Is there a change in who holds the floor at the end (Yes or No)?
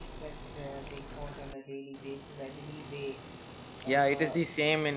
Yes